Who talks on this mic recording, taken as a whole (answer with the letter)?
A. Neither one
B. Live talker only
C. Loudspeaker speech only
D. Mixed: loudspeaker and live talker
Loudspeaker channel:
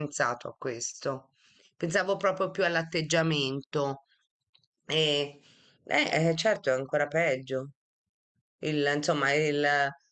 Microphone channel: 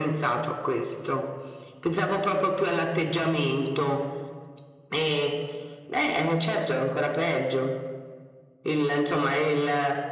C